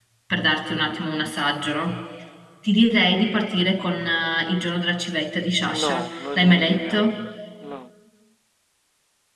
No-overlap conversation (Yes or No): No